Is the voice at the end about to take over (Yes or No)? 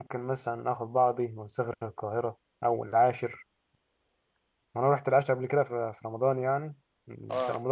No